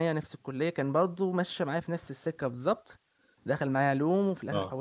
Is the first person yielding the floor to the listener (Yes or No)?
No